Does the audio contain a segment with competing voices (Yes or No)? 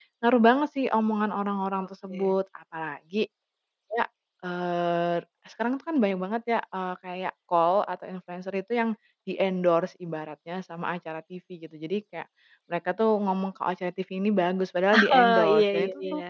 Yes